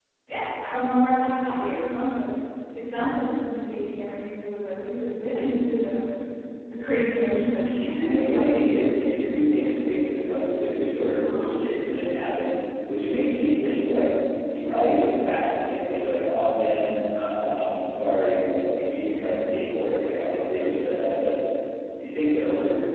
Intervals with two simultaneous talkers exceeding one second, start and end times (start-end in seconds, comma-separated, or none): 8.0-9.7